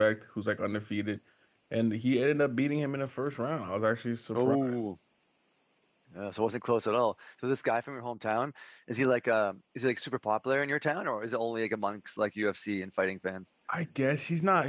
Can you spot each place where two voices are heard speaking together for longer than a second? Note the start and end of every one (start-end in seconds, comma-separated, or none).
none